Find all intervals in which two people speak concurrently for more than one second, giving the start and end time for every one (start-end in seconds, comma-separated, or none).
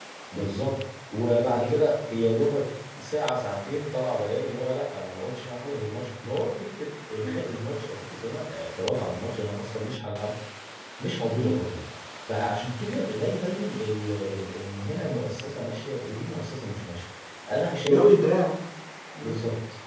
none